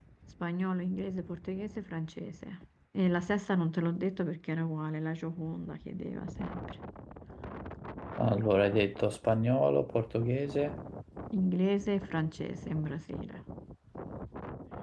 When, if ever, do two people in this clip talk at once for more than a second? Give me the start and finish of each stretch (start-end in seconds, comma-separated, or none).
none